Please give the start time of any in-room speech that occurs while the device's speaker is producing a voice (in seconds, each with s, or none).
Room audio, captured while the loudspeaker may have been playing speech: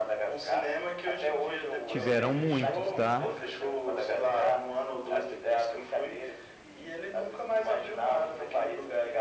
1.8 s